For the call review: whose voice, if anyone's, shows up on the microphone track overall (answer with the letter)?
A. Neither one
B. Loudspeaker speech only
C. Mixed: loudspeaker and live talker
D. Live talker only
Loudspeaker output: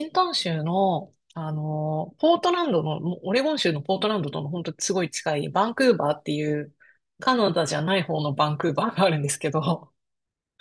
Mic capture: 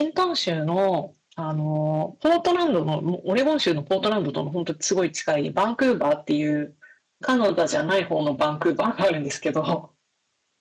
B